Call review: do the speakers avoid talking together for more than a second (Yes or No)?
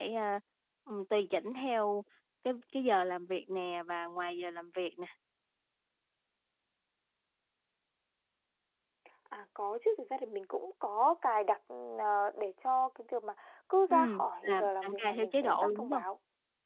No